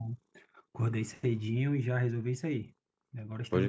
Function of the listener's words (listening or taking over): taking over